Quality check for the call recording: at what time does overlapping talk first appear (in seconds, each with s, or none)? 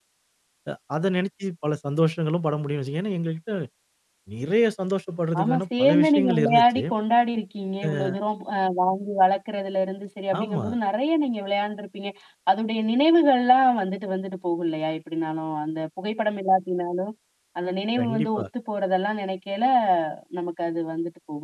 5.4 s